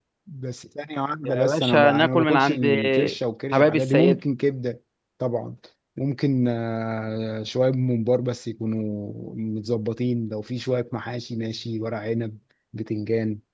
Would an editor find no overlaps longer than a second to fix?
No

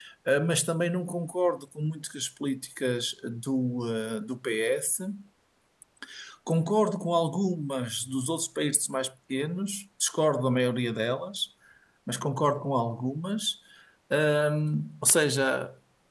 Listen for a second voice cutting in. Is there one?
No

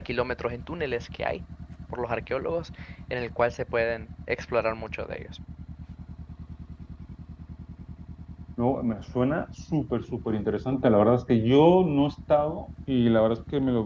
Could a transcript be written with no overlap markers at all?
Yes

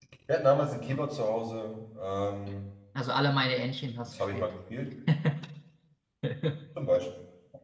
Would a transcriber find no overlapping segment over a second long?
Yes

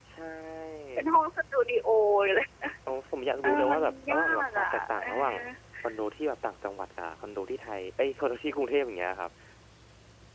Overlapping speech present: Yes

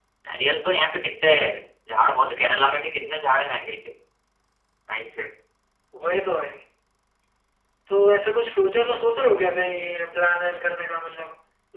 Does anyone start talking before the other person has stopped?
No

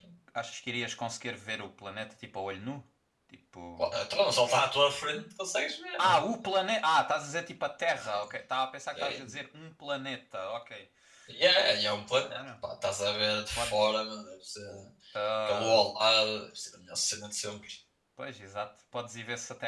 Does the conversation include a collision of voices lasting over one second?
No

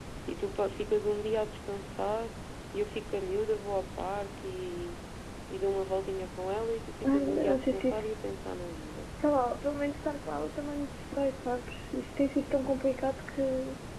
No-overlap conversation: No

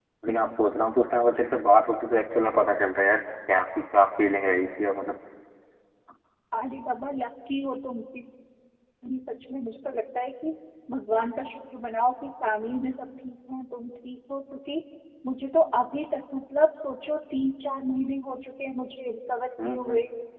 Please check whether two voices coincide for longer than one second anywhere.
No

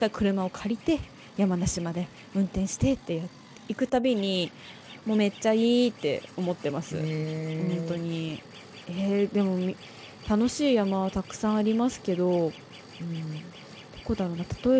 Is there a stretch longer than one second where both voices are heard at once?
No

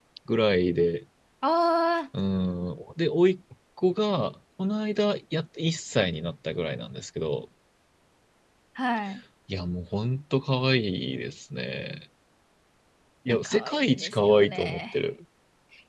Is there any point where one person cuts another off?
Yes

